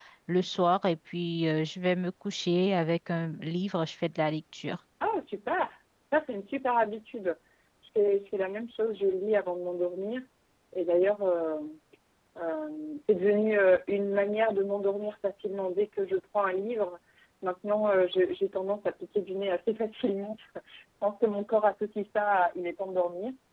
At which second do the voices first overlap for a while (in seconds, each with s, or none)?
none